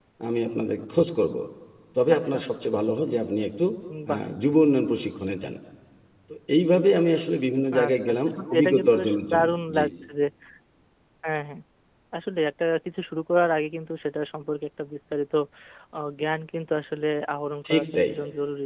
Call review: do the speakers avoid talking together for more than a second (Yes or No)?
No